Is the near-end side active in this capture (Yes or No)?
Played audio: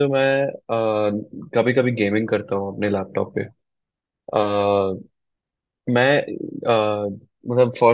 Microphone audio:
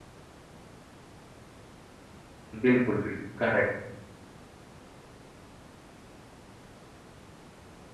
Yes